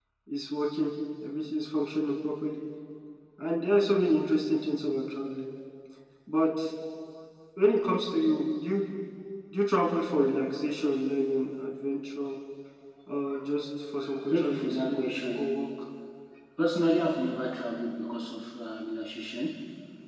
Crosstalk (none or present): present